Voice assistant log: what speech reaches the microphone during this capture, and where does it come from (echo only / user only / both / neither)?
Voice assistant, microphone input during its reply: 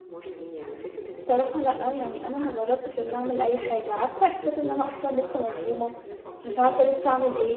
both